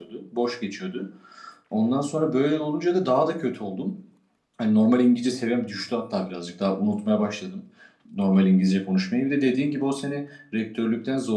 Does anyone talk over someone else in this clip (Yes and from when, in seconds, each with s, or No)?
No